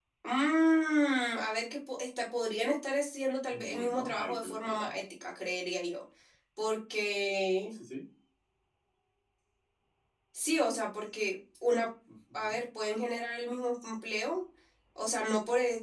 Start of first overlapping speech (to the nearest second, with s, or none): 3 s